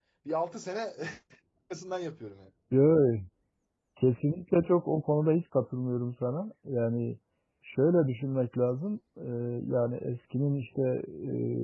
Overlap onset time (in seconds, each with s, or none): none